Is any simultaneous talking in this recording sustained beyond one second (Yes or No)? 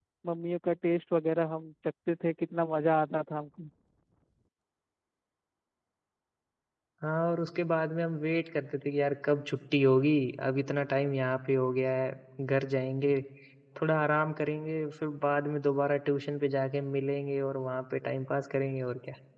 No